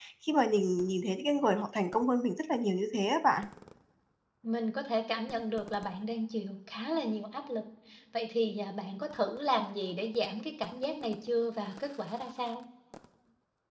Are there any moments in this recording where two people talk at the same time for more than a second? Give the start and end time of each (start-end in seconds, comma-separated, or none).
none